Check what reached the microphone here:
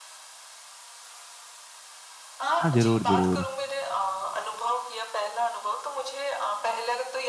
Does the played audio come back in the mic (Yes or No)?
Yes